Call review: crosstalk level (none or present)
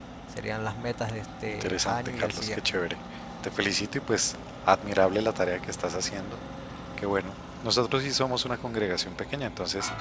present